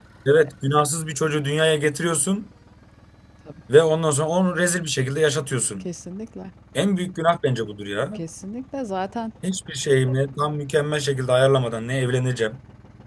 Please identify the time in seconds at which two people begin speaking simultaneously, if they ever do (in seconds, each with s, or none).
none